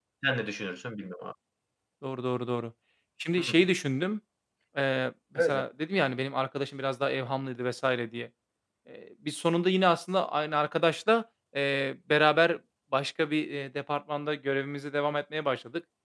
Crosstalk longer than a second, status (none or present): none